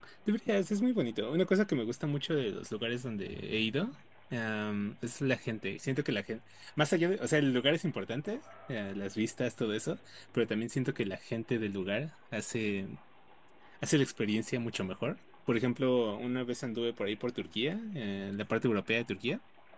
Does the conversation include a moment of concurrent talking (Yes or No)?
No